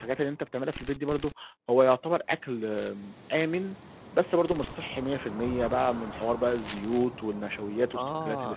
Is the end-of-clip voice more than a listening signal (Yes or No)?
Yes